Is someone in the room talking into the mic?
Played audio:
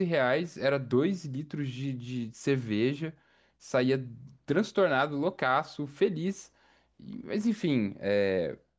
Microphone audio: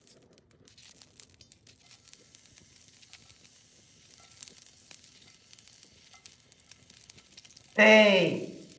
Yes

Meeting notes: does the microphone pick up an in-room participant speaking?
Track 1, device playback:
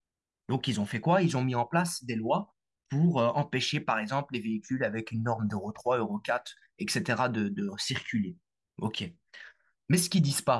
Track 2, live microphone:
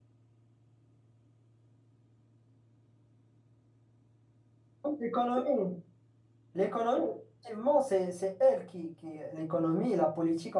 Yes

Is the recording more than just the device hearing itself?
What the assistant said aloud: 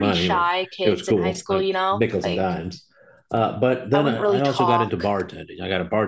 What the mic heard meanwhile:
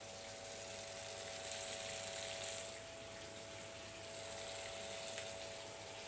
No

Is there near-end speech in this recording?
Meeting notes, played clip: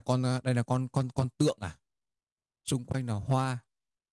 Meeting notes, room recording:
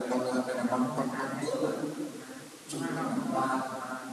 Yes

